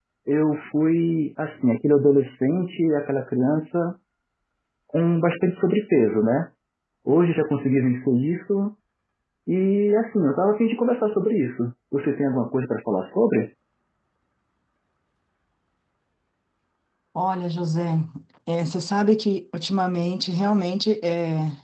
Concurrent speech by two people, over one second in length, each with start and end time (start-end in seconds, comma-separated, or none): none